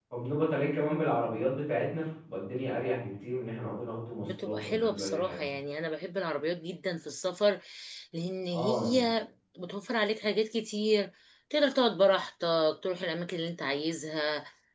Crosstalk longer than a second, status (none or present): present